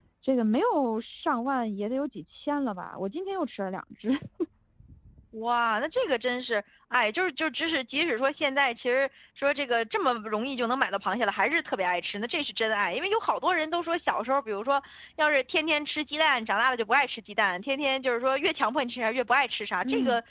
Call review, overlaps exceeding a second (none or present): none